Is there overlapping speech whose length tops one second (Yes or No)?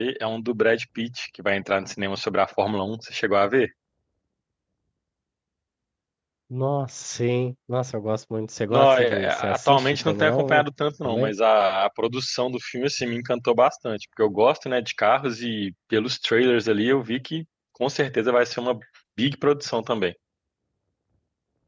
Yes